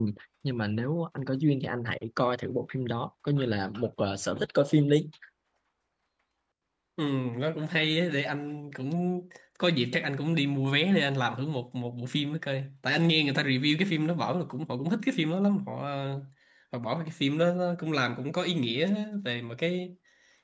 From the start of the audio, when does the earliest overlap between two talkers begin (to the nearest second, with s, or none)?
none